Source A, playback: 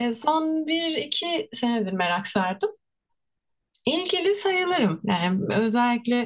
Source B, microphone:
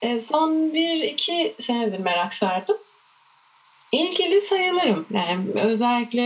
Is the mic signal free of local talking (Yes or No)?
Yes